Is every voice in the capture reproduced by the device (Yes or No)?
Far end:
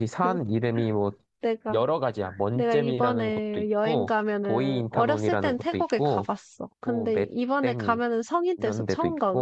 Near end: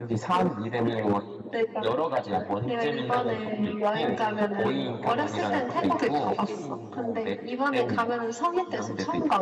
No